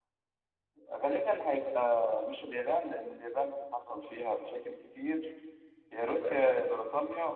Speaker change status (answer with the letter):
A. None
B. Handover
A